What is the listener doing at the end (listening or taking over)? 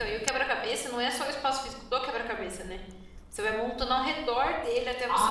taking over